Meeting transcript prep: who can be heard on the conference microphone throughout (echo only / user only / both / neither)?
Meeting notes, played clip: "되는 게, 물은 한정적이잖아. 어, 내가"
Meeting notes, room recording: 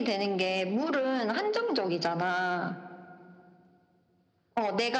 echo only